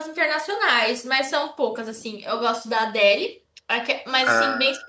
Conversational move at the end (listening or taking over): listening